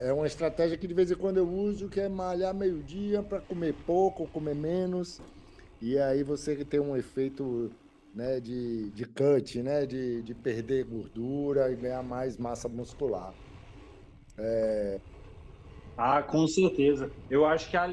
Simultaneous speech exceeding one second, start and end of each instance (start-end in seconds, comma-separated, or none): none